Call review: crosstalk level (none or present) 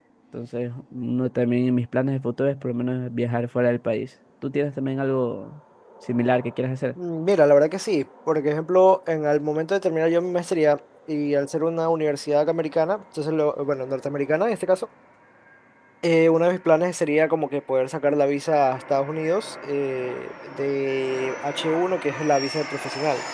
none